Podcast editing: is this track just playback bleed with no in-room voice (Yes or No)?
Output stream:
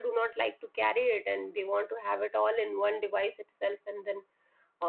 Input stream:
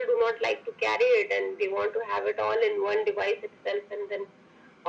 Yes